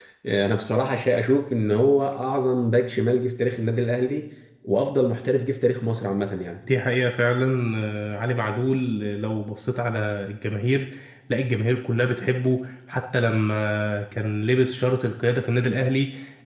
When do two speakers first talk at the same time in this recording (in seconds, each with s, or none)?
none